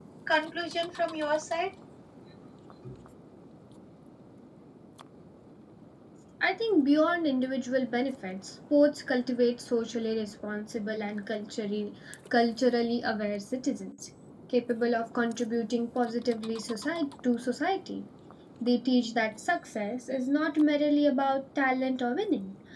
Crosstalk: none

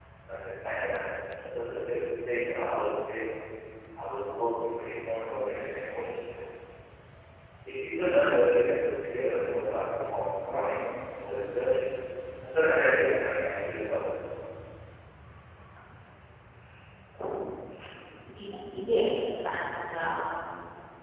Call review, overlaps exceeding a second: none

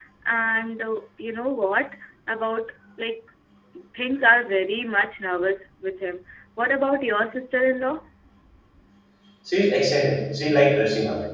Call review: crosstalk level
none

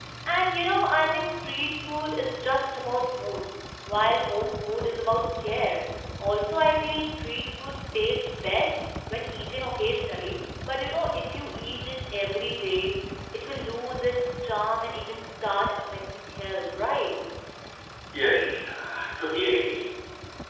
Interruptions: none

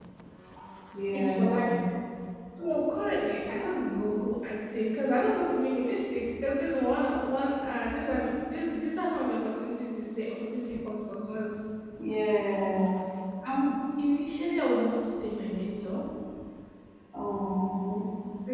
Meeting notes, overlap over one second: none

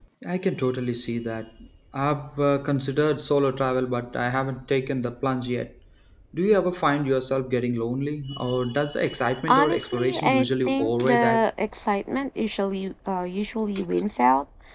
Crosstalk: present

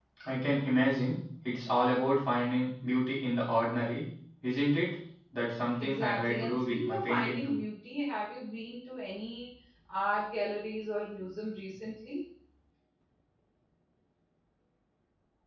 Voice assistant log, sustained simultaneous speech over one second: present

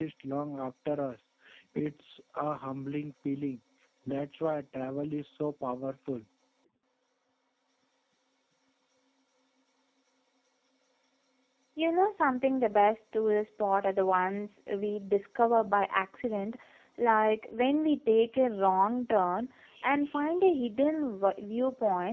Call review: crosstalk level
none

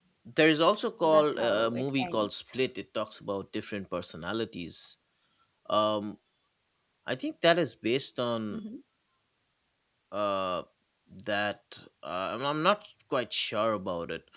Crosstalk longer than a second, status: present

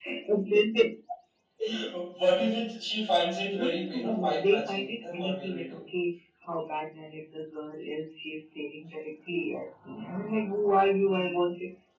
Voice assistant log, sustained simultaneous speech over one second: present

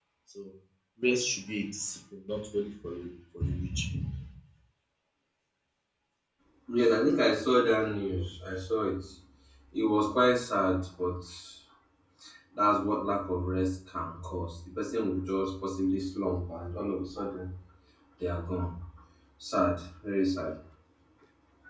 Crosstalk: none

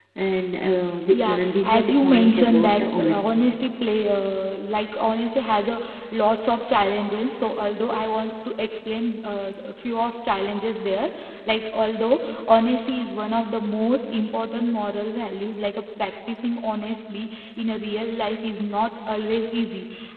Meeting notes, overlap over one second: present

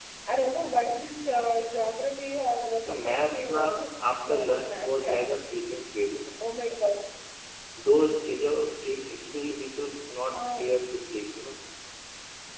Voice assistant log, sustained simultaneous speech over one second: present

